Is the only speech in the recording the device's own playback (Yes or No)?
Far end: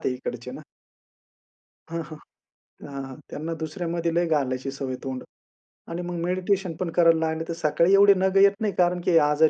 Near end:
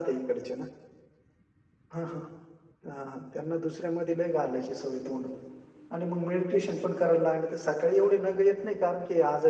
Yes